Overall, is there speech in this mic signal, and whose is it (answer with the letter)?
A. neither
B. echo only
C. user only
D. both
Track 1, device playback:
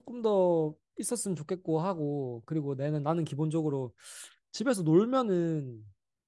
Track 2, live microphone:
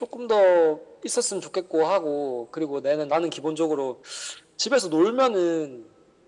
B